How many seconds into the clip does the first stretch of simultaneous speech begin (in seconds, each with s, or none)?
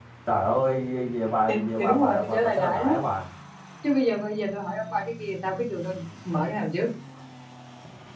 1.5 s